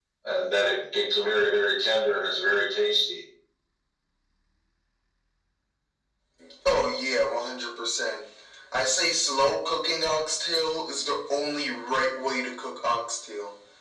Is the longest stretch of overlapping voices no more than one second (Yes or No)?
Yes